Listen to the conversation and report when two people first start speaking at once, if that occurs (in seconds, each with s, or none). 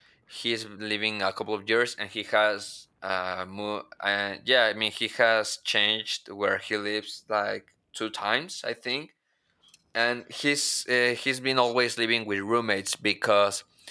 none